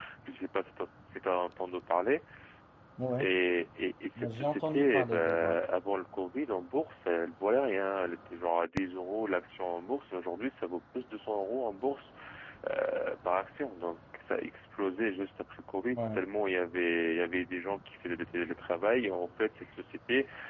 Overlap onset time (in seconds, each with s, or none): 4.3 s